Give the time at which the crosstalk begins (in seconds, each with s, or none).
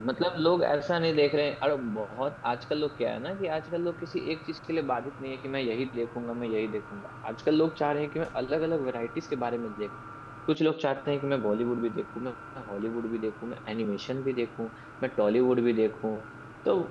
none